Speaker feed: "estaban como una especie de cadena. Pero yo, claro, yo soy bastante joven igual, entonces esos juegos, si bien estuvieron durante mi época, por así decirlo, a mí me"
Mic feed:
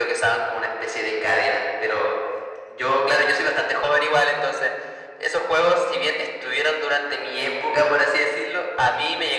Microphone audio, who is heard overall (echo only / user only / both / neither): echo only